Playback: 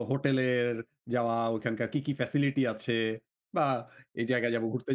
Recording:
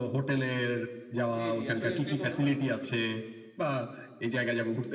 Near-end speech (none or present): present